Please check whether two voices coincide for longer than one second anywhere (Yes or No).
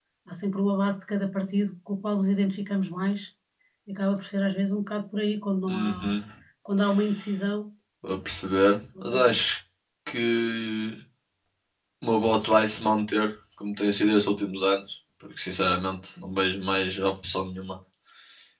No